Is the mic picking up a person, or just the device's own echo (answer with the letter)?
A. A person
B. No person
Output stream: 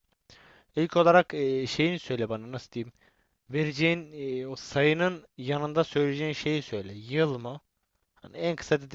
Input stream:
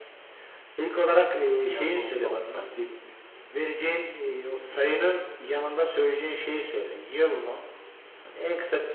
A